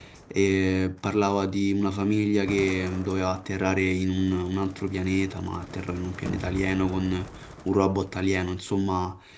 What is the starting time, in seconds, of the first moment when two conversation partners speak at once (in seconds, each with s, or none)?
none